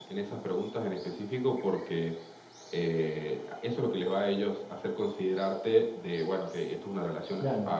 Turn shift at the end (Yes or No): Yes